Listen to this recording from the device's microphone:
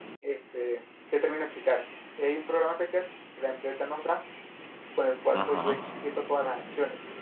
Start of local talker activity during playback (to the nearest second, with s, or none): 5 s